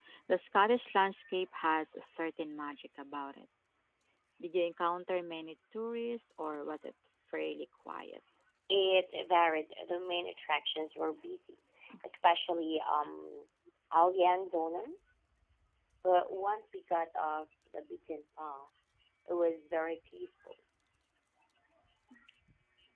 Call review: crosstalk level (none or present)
none